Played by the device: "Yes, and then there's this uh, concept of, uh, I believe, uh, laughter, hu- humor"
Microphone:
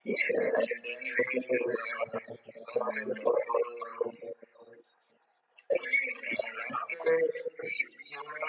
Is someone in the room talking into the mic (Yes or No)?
Yes